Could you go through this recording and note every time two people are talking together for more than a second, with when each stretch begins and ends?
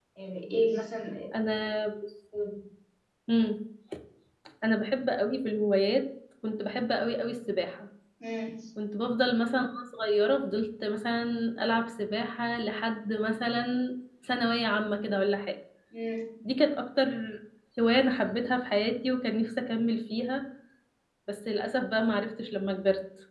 none

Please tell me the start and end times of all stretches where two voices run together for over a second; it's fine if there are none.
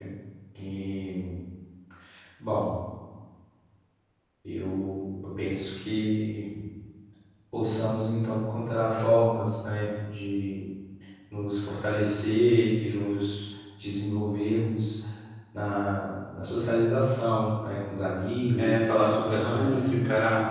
18.6-19.9

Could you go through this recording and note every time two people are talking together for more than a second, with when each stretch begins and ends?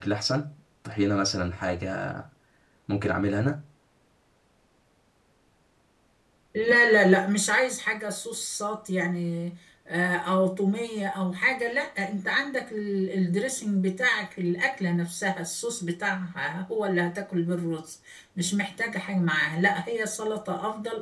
none

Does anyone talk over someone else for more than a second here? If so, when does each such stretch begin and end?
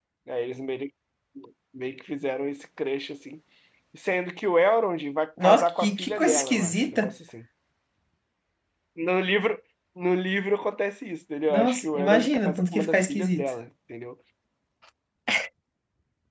5.4-7.1, 11.5-13.4

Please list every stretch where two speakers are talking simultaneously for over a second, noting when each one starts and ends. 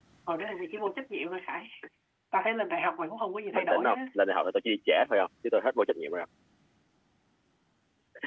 none

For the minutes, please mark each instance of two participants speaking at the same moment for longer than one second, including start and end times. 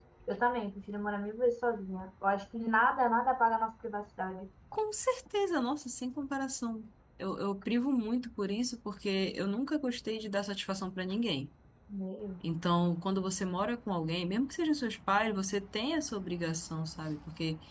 none

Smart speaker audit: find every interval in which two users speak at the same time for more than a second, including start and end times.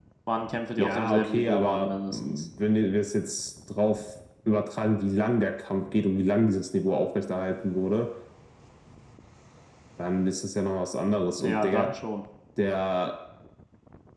0.8-2.5

